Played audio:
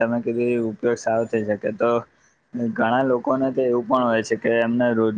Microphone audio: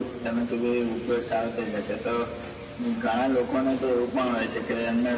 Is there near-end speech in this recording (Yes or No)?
No